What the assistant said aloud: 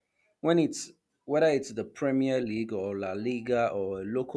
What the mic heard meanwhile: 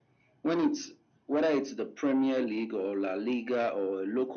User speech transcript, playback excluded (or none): none